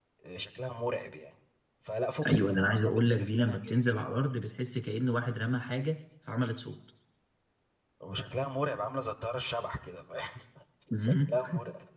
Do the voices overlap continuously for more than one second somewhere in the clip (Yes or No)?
Yes